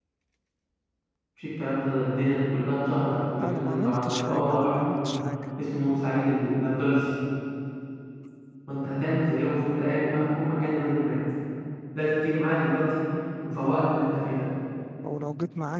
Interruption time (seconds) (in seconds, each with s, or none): 3.4 s